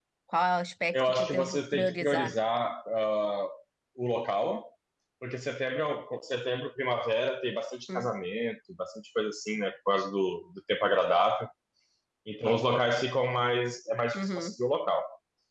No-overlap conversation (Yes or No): No